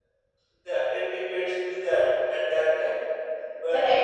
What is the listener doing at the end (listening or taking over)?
taking over